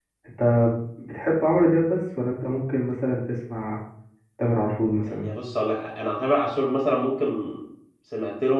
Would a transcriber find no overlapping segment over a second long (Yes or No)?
Yes